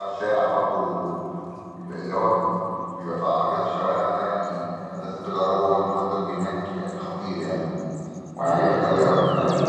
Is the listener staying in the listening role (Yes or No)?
No